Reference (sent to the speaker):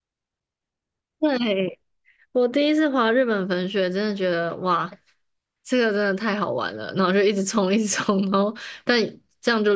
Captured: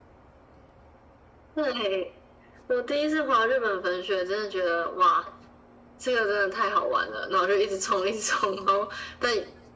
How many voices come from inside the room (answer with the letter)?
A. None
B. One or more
A